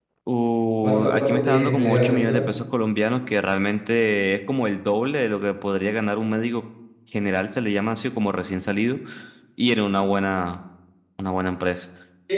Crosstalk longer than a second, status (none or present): present